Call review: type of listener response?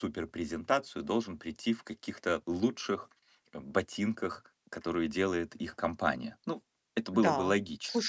taking over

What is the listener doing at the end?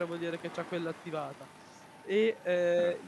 listening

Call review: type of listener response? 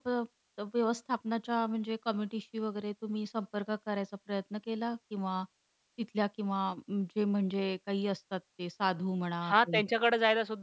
taking over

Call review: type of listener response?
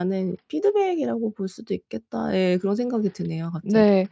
taking over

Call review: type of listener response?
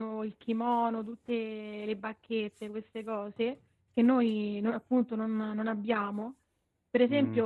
listening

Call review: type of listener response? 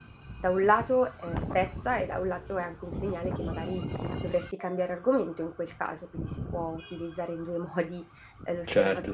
taking over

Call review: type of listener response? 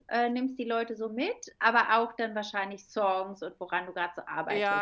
taking over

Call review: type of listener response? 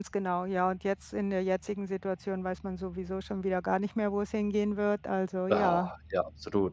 taking over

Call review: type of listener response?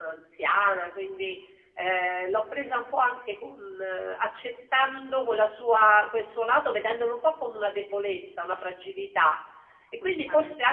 listening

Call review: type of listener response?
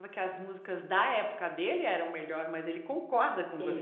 taking over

